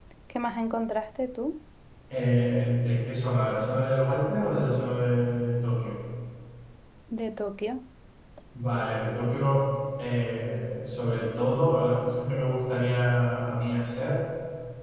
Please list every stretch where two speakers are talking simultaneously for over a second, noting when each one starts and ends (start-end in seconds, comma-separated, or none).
none